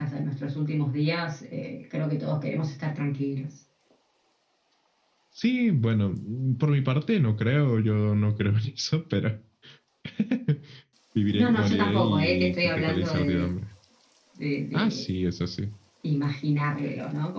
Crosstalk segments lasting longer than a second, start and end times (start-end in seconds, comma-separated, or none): 11.4-13.5